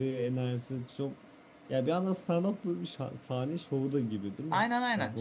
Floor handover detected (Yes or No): Yes